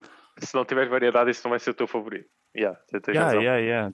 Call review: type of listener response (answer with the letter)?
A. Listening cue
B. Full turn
B